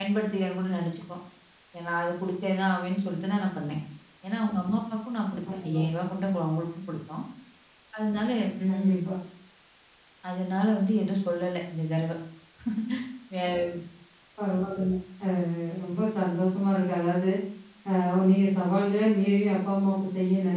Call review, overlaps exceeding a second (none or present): none